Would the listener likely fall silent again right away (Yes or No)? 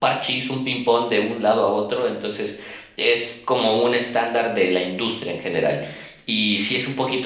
No